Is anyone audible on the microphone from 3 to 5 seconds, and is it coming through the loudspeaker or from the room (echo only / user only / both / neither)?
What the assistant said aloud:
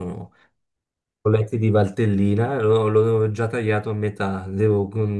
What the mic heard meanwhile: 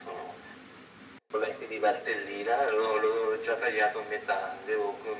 echo only